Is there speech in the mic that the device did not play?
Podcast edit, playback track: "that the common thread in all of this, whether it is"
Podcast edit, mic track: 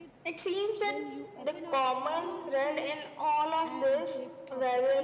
Yes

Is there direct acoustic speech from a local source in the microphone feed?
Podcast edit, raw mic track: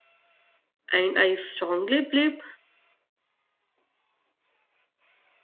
Yes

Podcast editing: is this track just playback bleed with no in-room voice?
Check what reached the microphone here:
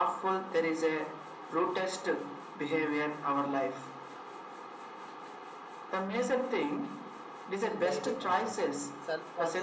No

